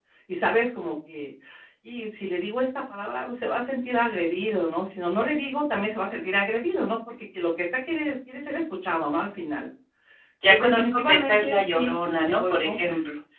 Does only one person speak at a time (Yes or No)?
No